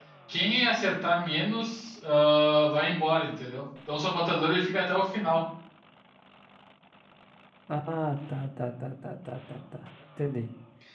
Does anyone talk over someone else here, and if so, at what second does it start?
none

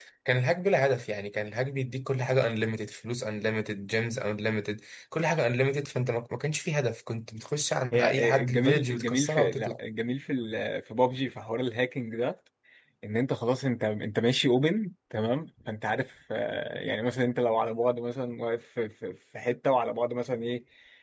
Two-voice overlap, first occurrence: 7.9 s

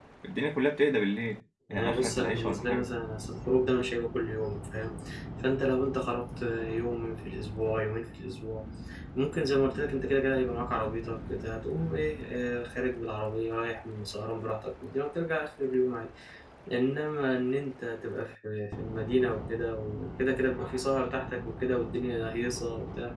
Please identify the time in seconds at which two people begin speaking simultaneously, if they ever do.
1.7 s

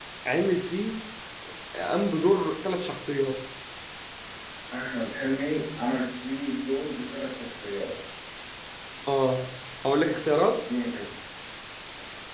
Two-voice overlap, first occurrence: none

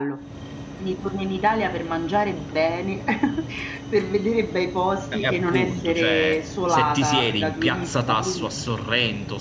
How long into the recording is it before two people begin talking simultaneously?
5.1 s

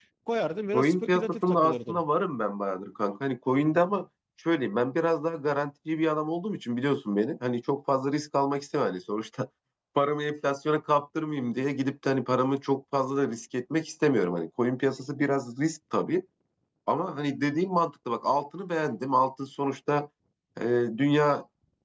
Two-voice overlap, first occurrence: 0.7 s

